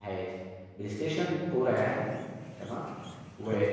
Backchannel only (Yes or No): Yes